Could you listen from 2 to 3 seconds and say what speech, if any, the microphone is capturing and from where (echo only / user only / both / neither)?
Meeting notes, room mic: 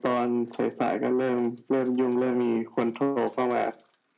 echo only